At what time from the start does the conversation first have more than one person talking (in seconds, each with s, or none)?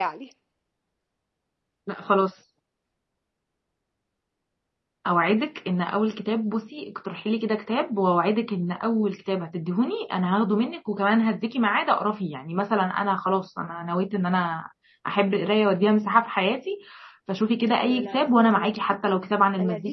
17.8 s